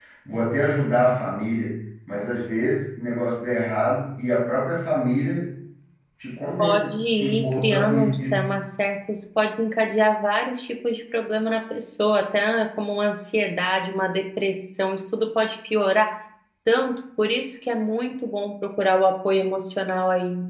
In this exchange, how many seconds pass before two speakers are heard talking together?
7 s

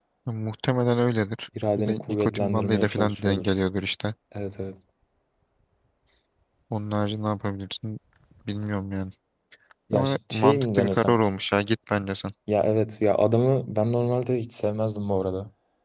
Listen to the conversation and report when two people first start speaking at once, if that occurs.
2 s

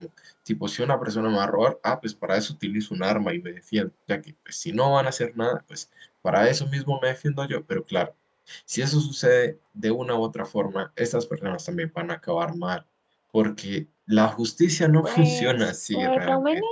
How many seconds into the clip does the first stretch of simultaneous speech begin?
15 s

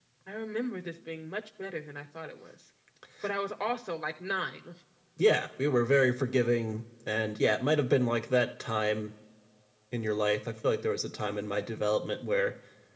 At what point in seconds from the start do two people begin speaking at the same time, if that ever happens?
none

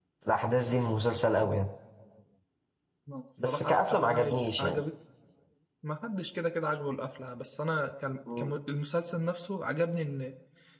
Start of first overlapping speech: 3 s

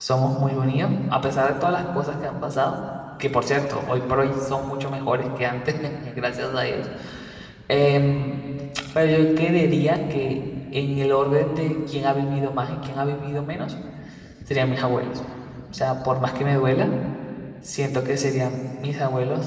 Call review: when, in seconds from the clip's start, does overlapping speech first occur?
none

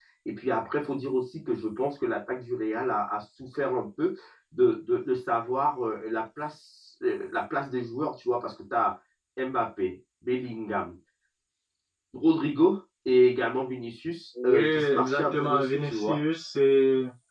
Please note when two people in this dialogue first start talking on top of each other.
14 s

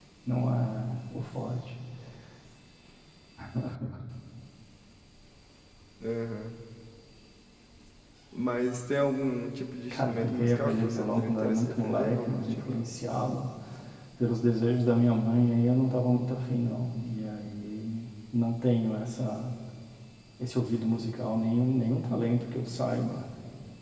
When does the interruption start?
10 s

